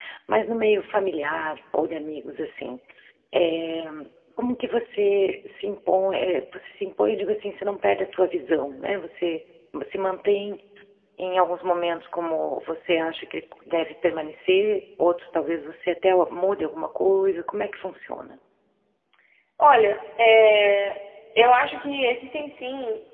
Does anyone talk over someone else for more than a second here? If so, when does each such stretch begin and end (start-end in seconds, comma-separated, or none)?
none